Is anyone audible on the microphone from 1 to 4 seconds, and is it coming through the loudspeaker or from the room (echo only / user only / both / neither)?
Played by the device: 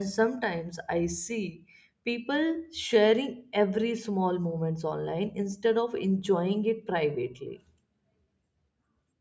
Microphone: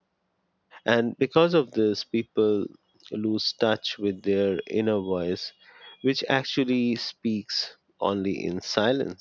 user only